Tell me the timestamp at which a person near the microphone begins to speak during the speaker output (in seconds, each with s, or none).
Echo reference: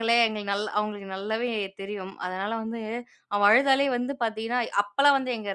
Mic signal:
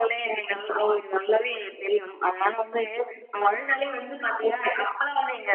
none